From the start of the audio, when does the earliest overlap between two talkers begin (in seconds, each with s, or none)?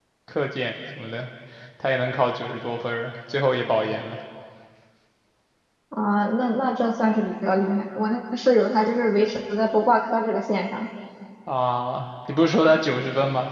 none